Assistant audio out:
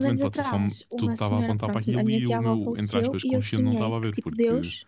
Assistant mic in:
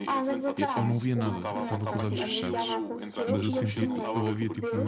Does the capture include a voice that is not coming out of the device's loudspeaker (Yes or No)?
Yes